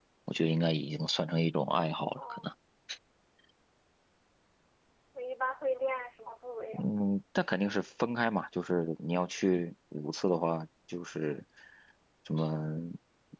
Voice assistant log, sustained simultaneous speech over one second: none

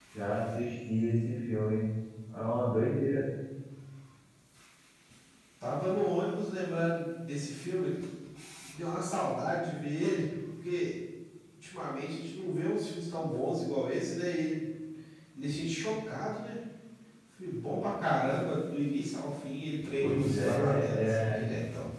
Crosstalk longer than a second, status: present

